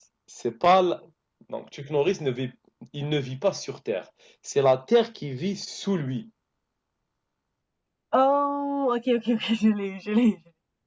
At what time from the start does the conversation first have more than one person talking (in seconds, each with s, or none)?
none